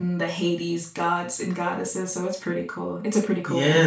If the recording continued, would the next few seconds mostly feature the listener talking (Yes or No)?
Yes